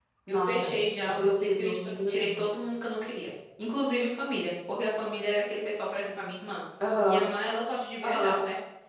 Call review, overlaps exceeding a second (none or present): present